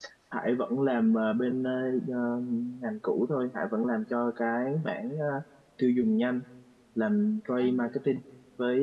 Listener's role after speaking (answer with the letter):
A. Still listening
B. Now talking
A